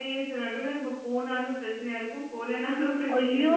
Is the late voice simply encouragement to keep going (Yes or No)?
No